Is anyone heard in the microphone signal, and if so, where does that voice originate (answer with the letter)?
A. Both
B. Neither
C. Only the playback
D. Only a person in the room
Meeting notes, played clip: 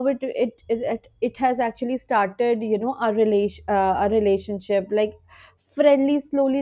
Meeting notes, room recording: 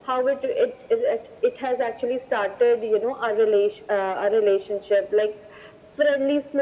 C